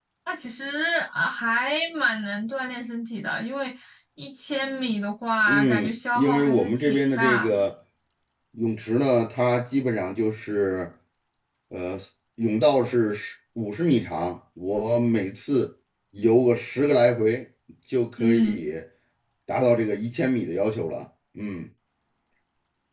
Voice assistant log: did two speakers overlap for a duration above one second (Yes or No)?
Yes